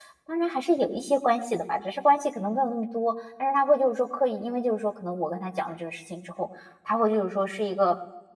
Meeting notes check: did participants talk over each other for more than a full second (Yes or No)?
No